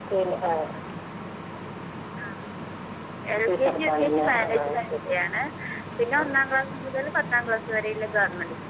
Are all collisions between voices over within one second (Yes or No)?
No